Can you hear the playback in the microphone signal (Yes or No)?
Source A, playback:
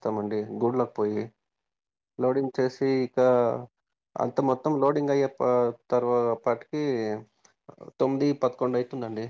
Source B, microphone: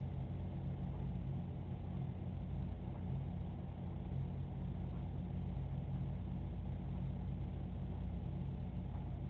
No